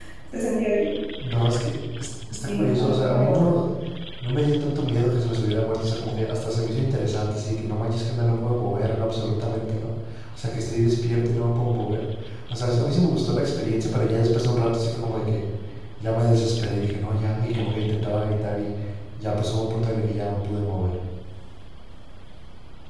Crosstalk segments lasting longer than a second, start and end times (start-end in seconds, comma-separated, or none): 2.3-3.5